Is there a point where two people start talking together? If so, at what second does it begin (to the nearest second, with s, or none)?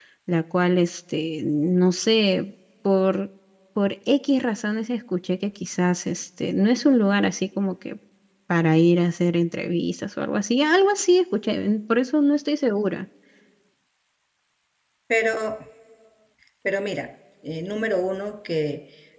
none